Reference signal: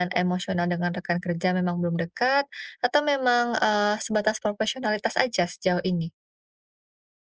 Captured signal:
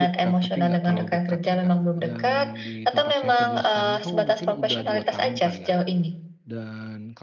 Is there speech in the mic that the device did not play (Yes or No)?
Yes